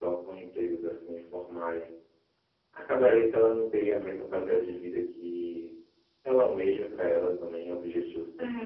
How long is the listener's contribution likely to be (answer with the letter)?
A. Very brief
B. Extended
B